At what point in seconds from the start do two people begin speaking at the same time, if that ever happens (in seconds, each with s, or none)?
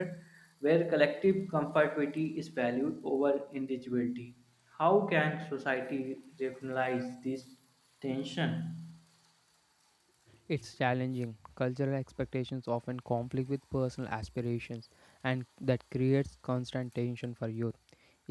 none